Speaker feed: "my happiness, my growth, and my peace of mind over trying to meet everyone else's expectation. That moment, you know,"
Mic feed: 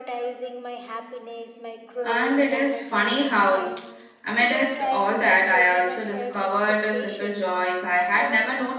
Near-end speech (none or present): present